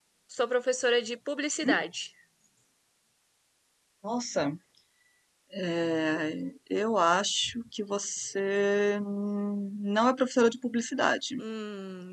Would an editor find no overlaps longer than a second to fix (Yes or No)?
Yes